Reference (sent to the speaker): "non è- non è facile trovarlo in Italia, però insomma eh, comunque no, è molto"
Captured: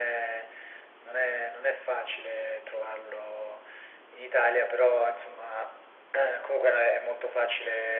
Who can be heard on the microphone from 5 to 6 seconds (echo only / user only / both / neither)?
echo only